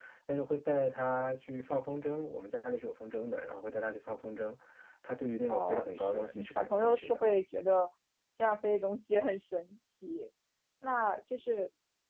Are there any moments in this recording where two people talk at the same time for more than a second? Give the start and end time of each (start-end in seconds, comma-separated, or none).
5.5-7.2